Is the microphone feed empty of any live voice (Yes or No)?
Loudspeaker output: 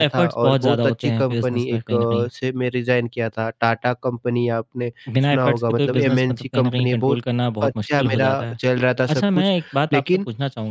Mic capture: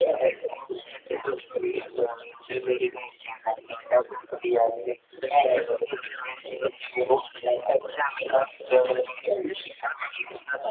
Yes